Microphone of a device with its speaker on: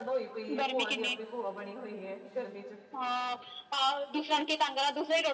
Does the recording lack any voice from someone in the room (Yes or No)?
No